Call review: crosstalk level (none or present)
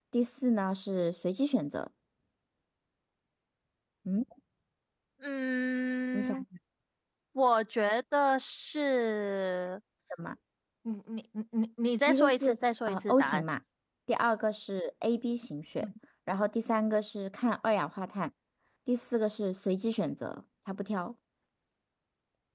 present